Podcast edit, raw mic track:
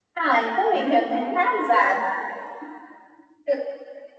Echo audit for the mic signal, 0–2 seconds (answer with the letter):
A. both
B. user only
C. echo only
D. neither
A